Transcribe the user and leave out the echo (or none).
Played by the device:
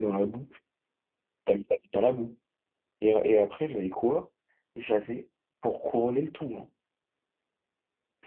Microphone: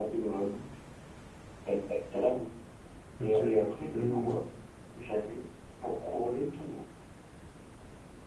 Ok, ouais, le Gremlins. quoi.